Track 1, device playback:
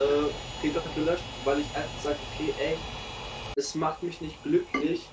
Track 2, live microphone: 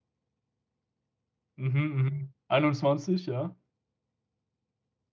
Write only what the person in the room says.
Mhm, mhm. 21, ja.

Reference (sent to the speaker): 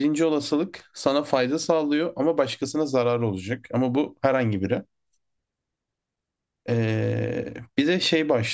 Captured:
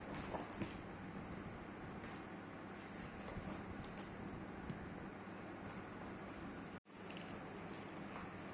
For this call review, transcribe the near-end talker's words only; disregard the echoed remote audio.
none

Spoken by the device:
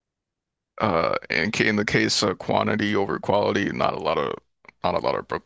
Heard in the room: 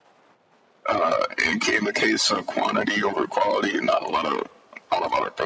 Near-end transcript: none

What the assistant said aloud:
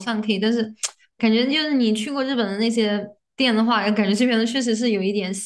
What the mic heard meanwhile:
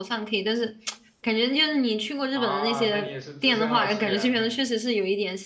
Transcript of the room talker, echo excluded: 啊？那你也是资深二次元了，

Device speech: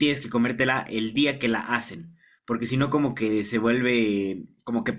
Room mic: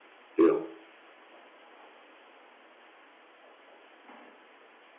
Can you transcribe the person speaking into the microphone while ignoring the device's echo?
digamos.

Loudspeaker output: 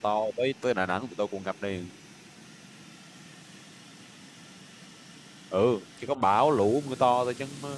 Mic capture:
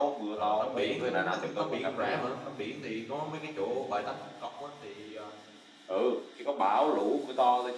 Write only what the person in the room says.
Ờ, tắm biển nói chung tắm biển cũng rẻ mà tắm biển thì có mấy cái chỗ bãi tắm công cộng á thì ờ,

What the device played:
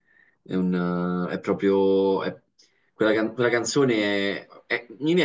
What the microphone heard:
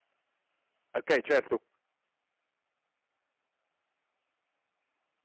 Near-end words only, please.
Okay, certo,

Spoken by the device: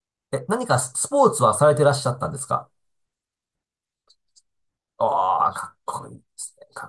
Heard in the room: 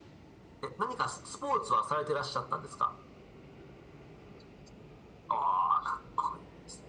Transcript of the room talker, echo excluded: none

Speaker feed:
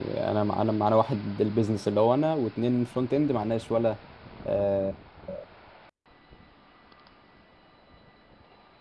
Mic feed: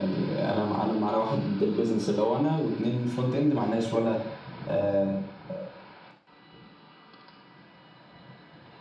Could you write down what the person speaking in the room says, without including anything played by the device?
none

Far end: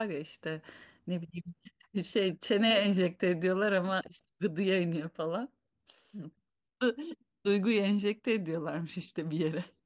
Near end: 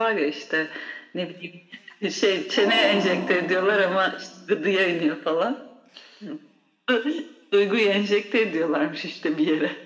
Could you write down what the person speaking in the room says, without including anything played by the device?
Aa.

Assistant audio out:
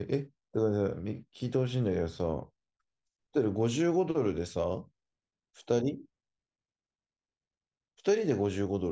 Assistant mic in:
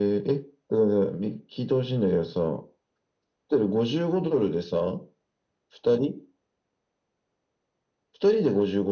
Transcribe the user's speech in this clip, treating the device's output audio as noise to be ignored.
none

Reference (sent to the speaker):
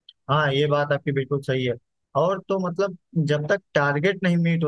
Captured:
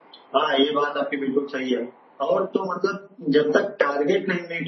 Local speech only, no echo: none

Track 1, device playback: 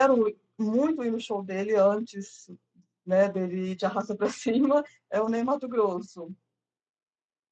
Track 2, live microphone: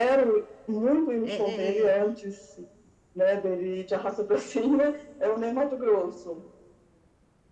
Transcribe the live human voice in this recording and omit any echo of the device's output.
é, é, é-

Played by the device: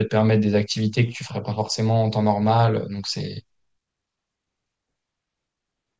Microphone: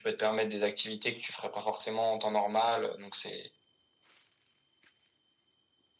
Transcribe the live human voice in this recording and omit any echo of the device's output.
none

